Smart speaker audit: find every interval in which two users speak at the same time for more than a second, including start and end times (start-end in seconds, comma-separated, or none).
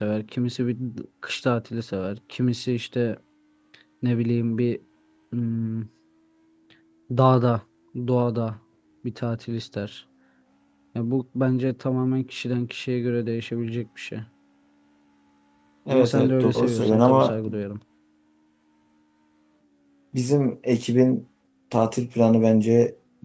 15.9-17.3